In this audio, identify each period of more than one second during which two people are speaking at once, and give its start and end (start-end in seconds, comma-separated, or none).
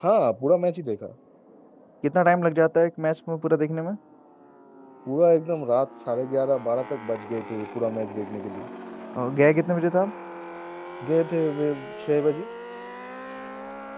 none